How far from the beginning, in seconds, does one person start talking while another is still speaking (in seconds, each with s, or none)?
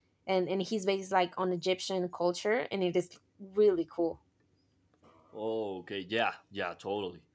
none